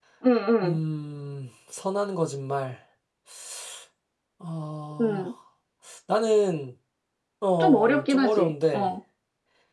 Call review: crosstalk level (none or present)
present